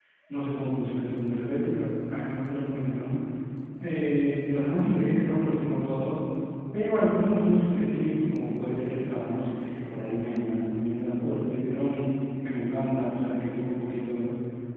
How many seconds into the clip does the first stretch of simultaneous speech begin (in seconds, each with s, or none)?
none